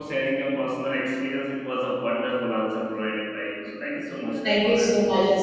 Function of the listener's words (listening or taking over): taking over